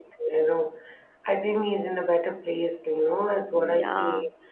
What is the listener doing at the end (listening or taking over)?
listening